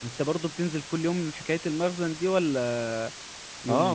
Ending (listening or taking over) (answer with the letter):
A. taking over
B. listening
A